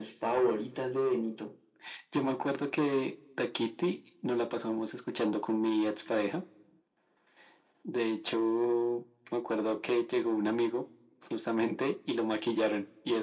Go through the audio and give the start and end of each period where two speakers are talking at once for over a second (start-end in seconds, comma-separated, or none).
none